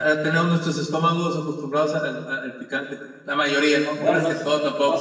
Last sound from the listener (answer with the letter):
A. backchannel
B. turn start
B